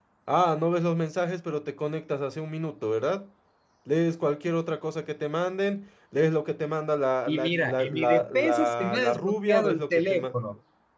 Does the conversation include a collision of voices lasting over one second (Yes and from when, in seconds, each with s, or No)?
Yes, from 7.3 s